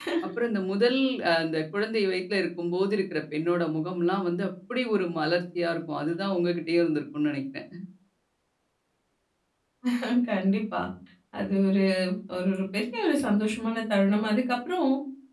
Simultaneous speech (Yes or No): No